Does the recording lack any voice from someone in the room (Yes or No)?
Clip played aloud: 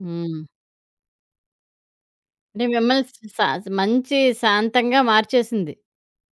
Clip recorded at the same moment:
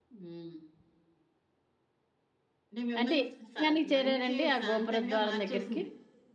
No